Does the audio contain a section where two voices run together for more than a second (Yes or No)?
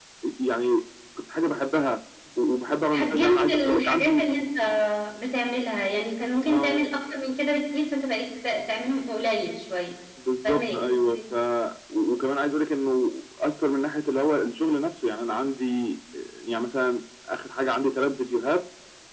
Yes